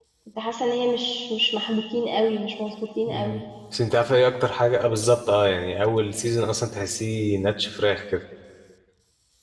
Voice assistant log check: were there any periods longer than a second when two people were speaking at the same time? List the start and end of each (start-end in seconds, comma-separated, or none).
none